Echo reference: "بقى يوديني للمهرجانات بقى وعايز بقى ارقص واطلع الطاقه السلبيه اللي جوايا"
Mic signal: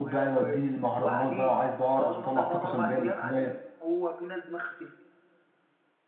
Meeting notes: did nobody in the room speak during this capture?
No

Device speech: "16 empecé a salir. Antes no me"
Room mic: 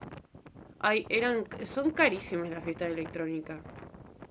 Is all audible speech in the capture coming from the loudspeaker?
No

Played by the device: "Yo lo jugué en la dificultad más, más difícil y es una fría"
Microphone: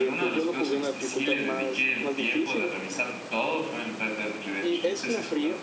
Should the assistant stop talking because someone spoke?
Yes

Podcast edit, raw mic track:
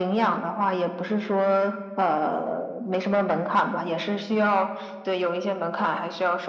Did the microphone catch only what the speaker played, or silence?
Yes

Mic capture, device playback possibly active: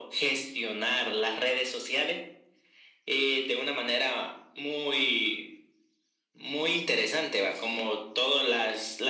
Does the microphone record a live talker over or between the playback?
No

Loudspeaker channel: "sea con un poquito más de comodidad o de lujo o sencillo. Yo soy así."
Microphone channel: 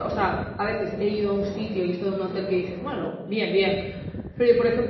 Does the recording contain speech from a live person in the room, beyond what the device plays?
Yes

